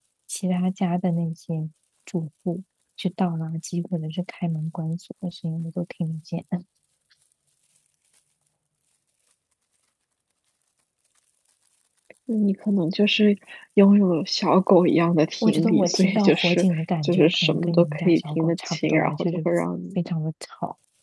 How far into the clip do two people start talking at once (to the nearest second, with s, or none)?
15 s